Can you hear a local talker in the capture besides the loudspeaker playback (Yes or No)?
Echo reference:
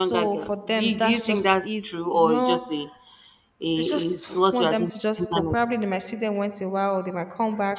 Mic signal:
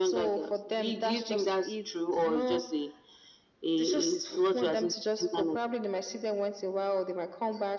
No